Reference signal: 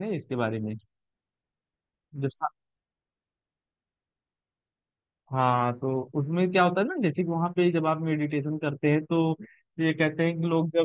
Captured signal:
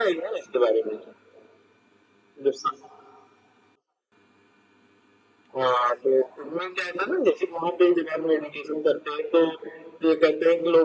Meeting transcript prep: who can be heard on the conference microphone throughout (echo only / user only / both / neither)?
echo only